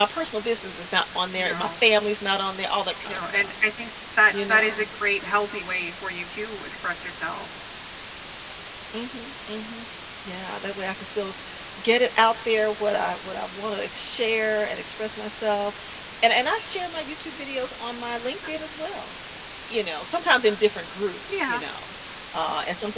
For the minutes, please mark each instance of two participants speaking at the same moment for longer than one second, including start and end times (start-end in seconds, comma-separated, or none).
none